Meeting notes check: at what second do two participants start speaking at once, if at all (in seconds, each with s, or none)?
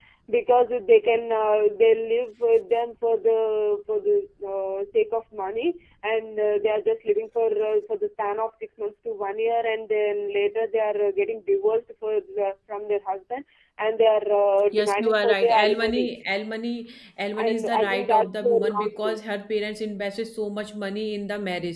14.7 s